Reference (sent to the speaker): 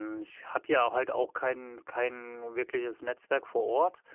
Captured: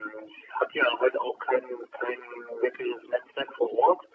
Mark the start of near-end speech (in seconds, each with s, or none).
none